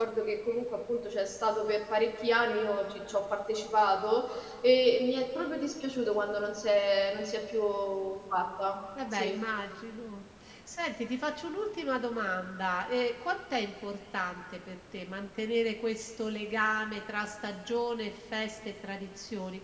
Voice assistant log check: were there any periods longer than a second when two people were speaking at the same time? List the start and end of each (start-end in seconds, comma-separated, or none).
none